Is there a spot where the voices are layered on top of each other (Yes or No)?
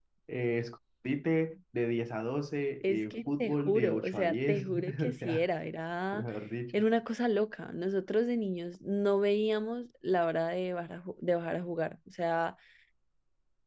Yes